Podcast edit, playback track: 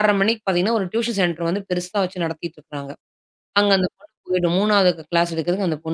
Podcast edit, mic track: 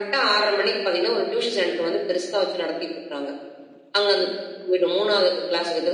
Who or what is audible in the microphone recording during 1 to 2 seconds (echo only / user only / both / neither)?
echo only